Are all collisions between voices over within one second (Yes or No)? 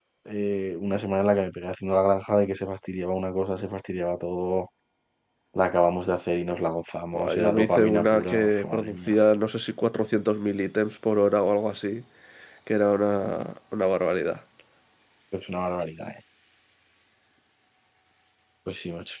No